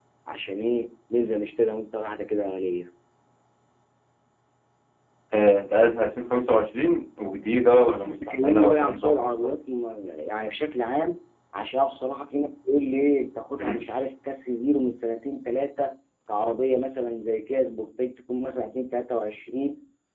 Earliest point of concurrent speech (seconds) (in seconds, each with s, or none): 8.1 s